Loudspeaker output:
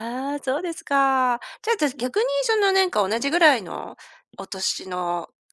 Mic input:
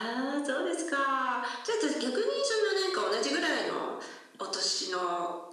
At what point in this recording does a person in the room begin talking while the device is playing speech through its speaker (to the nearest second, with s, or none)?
none